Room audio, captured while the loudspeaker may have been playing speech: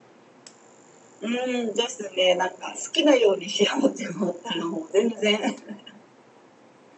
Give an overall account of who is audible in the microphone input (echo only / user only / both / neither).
echo only